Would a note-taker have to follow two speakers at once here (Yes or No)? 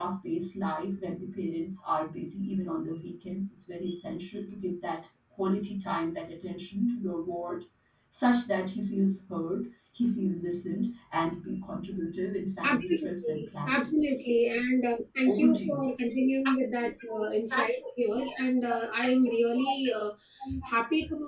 Yes